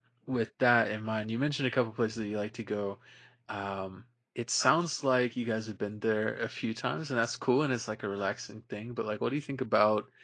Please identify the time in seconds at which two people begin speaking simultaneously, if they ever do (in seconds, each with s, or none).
none